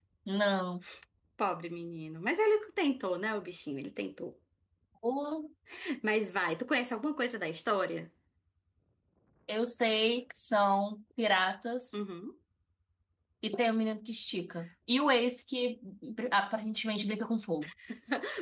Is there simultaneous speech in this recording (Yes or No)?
No